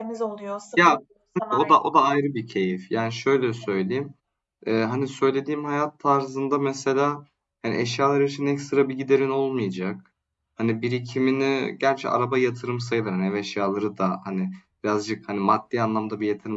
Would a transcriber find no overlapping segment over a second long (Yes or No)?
Yes